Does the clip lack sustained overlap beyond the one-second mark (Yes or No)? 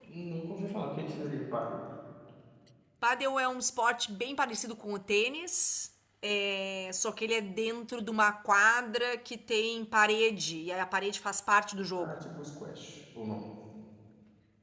Yes